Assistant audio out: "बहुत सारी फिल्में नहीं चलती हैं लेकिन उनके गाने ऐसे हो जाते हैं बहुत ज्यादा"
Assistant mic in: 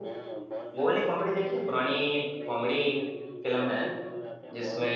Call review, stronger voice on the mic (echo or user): user